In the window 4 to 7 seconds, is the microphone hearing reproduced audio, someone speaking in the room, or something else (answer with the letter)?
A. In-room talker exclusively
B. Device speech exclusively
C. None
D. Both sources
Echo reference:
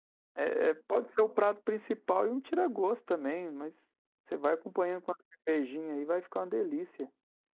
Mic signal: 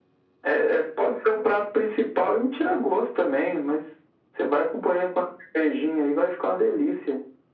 B